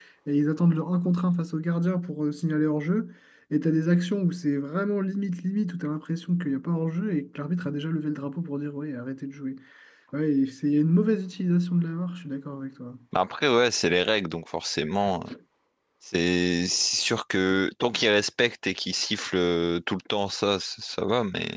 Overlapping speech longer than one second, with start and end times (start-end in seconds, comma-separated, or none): none